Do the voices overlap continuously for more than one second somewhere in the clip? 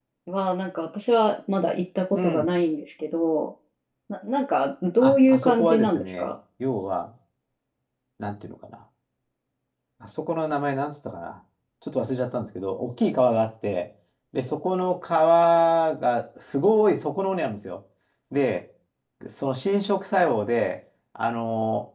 Yes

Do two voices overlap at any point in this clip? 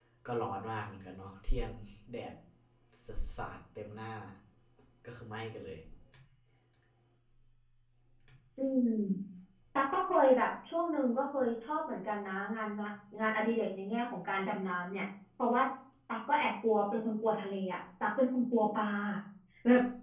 No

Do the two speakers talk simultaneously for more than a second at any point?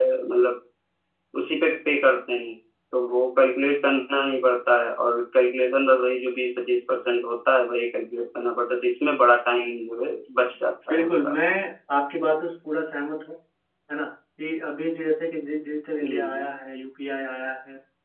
No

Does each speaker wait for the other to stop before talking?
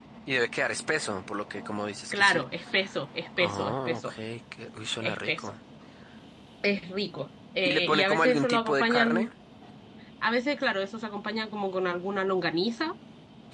No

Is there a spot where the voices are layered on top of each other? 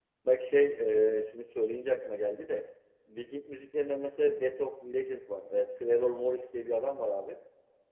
No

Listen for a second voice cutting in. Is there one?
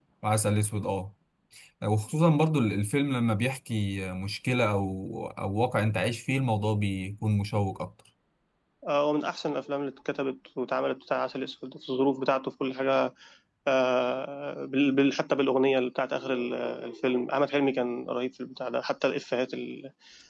No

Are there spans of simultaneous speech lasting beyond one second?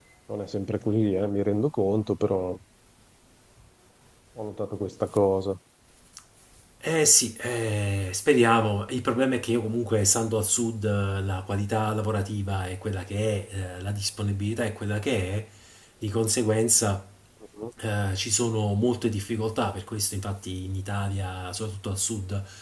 No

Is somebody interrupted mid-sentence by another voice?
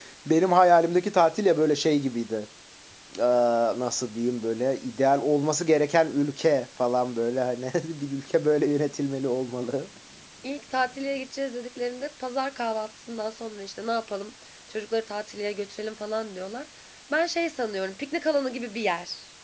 No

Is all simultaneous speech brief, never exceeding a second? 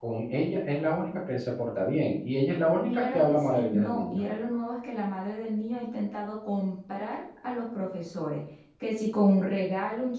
No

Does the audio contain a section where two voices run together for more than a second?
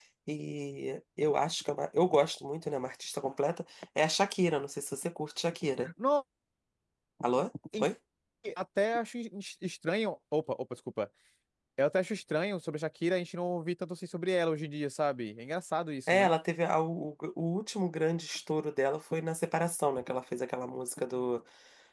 No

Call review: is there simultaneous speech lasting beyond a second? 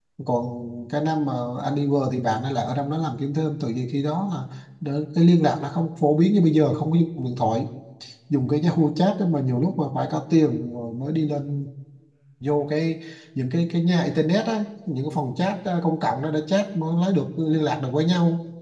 No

